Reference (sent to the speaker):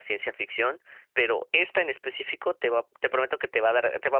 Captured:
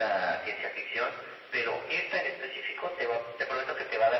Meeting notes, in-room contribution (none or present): none